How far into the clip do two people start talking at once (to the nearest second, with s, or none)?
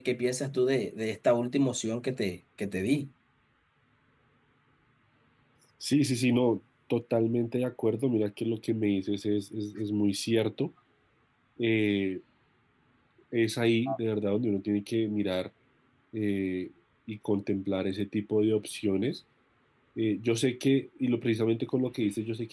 none